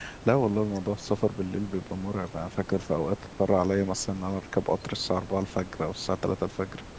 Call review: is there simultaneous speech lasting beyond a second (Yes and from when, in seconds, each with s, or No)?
No